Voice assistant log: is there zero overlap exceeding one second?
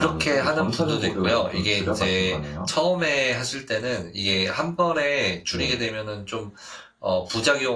No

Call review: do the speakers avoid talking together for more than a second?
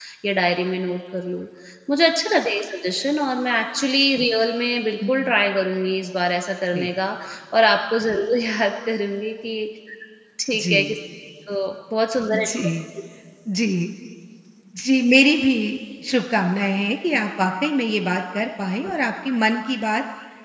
Yes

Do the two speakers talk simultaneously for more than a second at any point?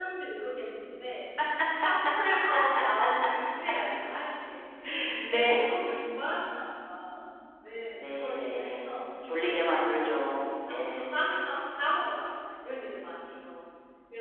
Yes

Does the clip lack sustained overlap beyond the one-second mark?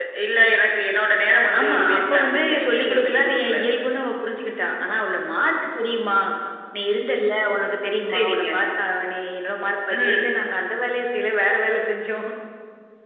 No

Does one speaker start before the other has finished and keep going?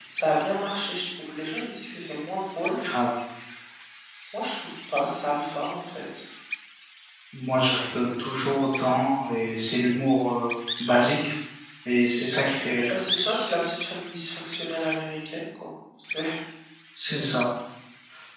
No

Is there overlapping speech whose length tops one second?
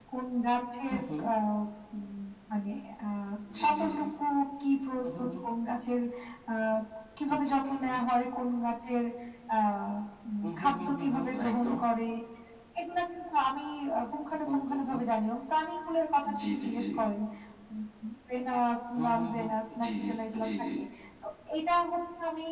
Yes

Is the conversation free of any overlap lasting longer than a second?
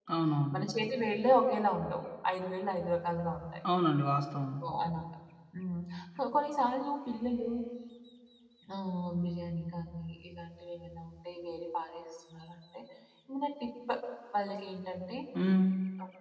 Yes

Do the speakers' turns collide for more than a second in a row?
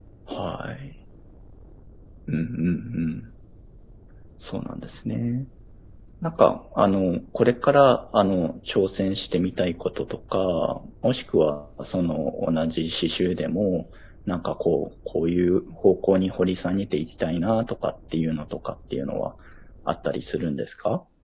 No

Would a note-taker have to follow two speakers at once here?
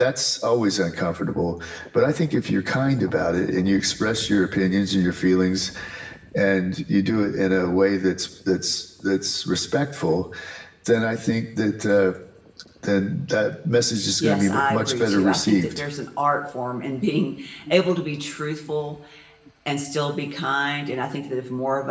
Yes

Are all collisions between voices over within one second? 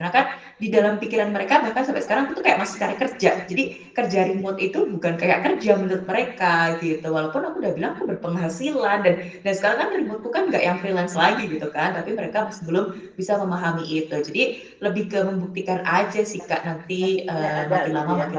No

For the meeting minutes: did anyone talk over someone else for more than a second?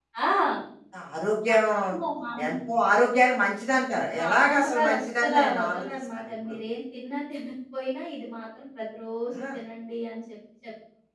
Yes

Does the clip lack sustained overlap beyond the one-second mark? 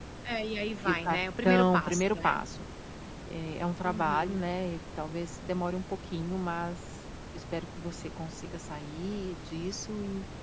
No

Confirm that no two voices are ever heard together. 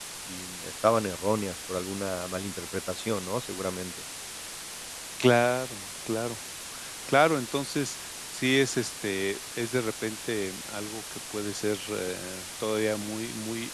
Yes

